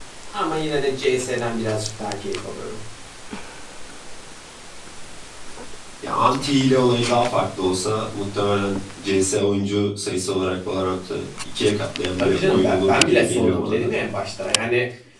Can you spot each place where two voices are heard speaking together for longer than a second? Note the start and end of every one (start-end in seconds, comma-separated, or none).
12.2-13.9